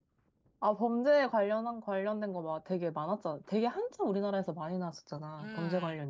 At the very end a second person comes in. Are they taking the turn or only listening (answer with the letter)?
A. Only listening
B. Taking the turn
B